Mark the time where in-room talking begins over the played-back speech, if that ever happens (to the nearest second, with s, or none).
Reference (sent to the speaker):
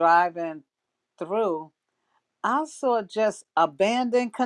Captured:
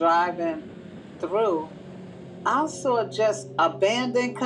none